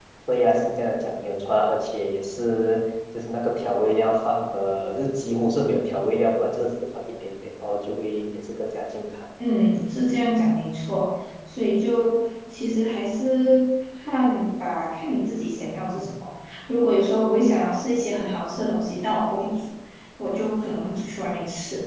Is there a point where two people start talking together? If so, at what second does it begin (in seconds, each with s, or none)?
none